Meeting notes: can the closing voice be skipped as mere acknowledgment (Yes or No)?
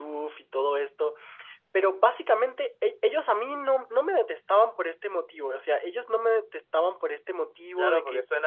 No